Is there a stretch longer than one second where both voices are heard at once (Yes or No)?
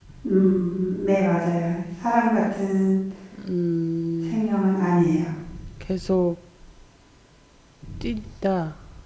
No